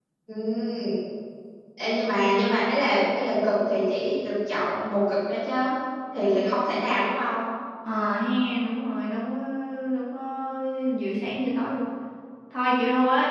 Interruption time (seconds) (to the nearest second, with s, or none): none